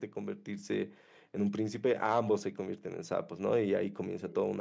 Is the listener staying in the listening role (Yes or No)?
Yes